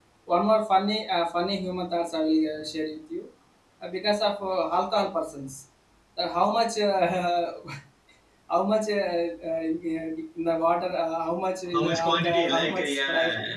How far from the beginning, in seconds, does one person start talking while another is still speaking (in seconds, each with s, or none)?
11.7 s